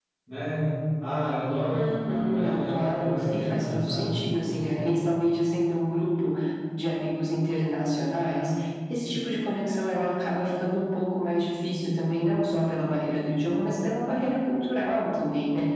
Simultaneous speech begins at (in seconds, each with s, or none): 1.7 s